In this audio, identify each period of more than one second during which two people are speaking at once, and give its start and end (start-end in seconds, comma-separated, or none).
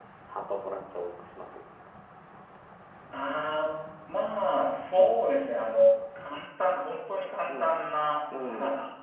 none